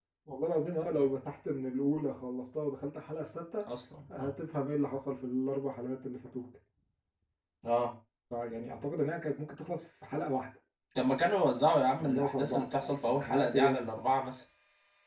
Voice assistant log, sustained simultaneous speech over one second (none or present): present